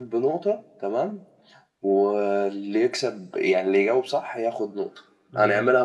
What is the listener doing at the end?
listening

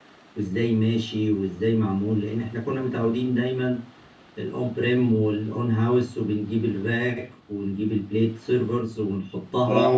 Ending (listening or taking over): taking over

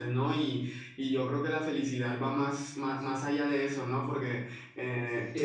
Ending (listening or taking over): listening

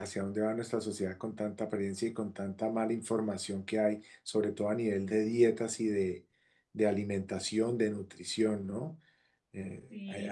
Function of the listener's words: taking over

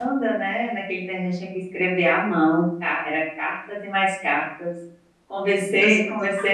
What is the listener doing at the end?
listening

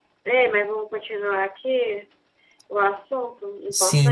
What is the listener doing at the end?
taking over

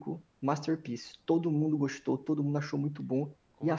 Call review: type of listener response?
listening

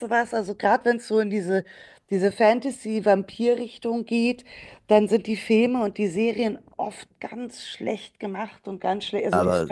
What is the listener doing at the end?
listening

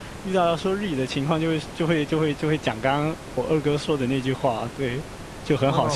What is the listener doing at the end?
taking over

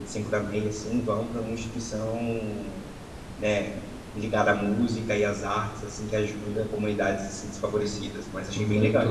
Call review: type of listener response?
taking over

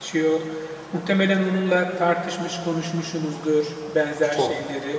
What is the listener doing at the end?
listening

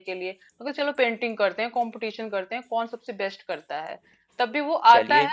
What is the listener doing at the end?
listening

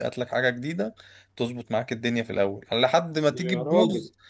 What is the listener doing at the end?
listening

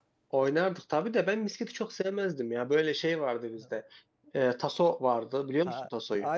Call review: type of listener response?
taking over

